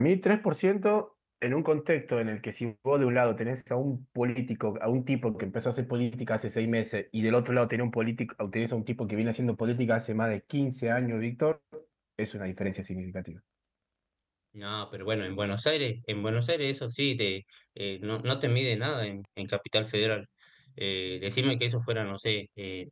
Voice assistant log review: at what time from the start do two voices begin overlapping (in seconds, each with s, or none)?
none